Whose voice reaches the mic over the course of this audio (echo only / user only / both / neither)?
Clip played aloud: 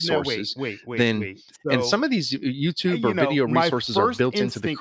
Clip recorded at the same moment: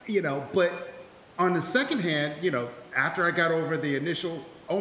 user only